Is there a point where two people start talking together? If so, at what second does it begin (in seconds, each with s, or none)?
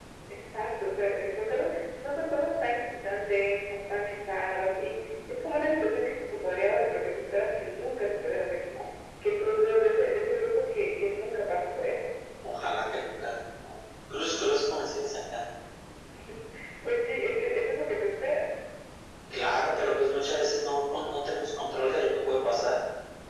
none